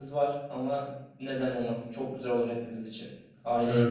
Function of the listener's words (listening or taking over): taking over